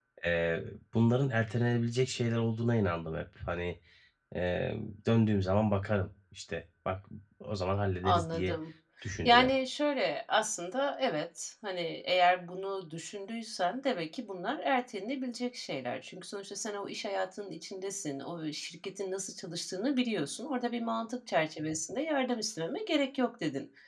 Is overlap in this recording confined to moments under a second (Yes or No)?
Yes